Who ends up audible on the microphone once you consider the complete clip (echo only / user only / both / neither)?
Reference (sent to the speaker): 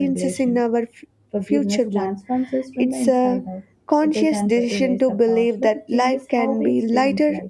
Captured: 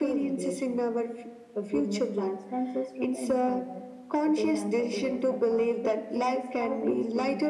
echo only